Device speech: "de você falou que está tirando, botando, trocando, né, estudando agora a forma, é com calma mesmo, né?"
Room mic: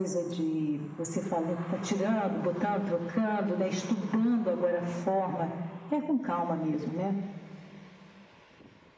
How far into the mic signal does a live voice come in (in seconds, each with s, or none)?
none